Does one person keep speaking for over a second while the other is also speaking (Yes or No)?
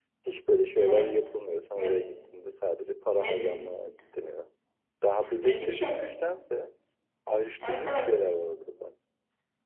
No